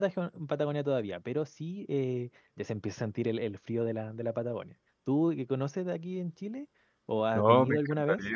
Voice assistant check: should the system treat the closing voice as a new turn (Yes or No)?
Yes